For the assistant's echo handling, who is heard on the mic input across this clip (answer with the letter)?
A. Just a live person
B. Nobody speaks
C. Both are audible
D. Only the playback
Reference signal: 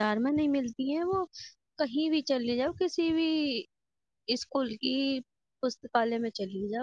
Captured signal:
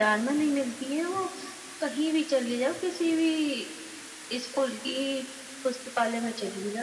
D